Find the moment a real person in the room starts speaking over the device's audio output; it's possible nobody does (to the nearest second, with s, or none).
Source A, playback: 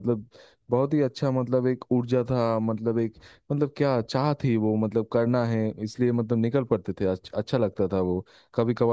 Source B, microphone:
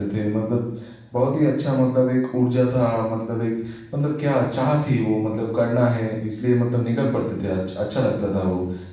none